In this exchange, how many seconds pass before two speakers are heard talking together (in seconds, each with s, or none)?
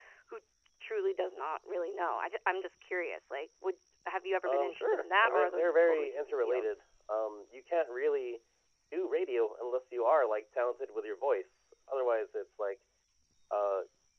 4.4 s